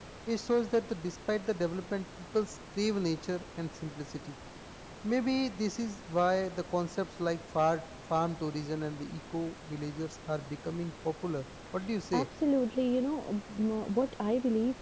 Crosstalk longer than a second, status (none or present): none